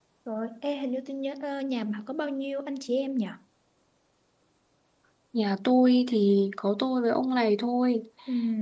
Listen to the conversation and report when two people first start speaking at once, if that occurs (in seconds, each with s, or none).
none